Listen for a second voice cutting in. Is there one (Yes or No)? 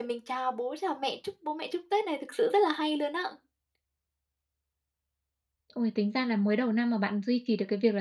No